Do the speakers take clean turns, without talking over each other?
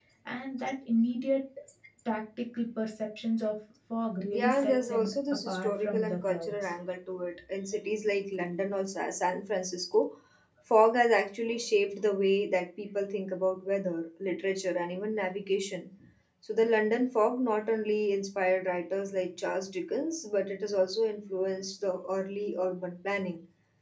No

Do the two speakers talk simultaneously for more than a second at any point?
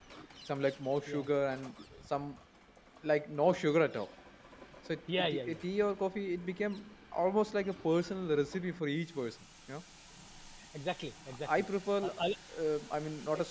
No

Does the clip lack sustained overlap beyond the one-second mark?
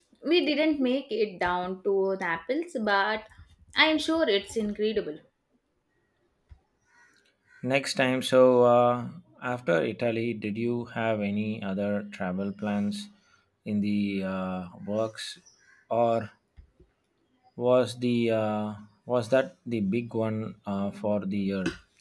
Yes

